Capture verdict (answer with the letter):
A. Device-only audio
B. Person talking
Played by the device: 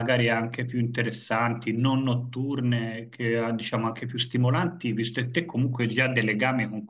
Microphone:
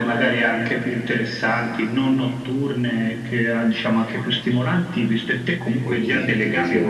B